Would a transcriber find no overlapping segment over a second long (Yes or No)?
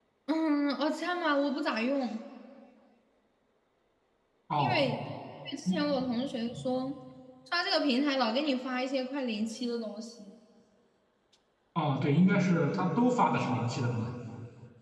Yes